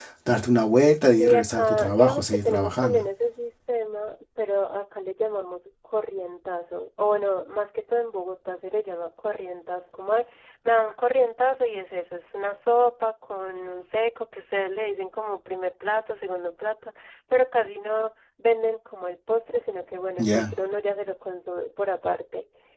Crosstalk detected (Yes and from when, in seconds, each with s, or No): Yes, from 1.1 s